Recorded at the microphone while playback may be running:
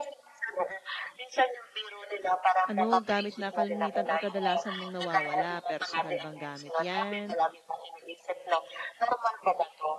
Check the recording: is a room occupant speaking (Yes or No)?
Yes